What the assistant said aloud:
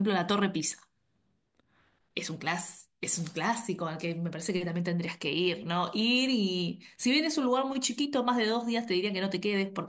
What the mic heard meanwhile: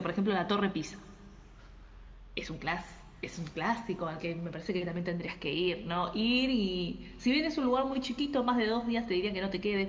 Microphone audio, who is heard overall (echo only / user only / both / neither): echo only